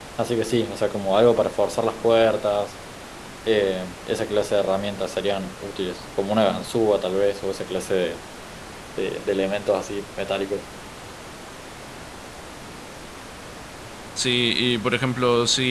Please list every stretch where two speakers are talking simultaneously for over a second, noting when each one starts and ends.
none

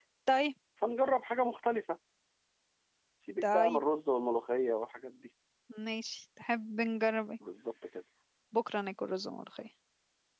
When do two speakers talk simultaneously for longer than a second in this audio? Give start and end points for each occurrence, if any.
none

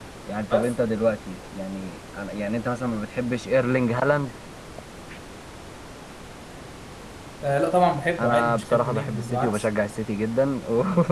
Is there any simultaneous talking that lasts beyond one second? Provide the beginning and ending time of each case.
8.2-9.7

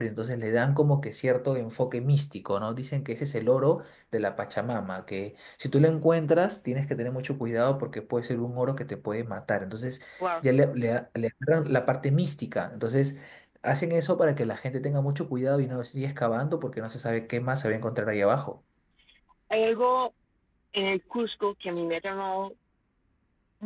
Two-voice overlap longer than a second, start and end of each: none

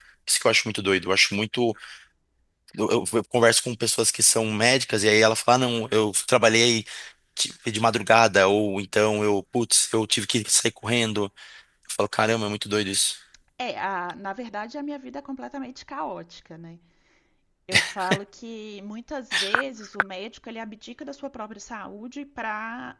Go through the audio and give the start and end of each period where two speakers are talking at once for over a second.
none

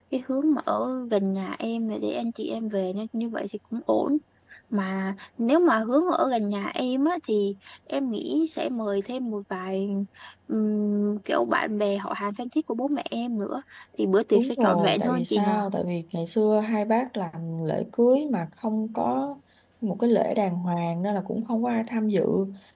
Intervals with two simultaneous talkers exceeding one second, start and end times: 14.3-15.6

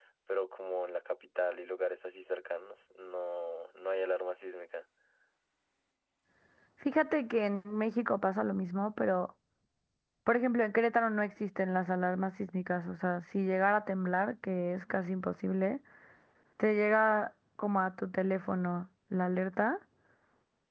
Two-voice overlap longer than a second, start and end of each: none

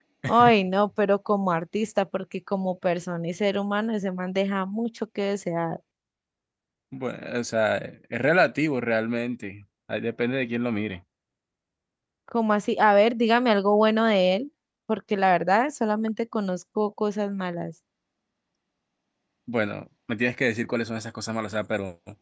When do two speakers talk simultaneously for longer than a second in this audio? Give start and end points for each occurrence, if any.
none

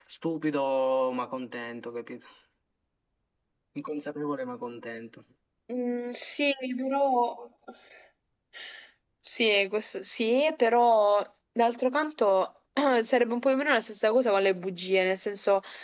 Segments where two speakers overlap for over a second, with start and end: none

